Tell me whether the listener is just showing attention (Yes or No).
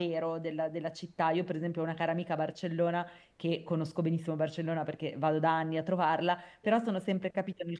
Yes